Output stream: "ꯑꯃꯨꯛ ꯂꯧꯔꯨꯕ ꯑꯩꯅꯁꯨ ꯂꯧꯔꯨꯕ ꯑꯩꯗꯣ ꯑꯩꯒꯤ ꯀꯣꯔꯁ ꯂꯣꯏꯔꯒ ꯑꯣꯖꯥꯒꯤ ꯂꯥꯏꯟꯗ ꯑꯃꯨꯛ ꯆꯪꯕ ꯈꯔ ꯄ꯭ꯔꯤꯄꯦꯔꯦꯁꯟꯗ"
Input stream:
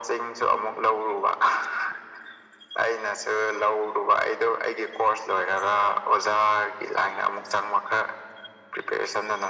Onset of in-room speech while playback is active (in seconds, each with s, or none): none